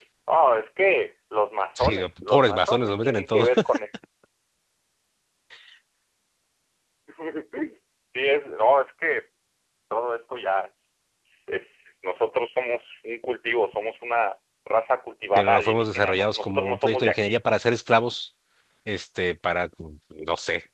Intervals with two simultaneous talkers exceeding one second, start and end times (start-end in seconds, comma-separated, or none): 1.8-3.5, 15.4-17.4